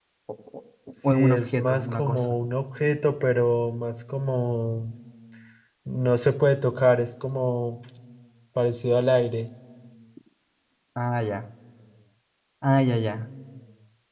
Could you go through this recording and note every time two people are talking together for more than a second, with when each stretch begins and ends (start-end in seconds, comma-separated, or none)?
1.1-2.4